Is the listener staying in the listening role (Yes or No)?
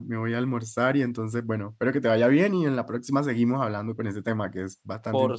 No